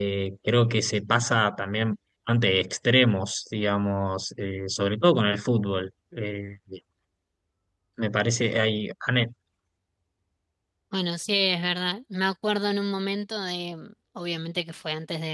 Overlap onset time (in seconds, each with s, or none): none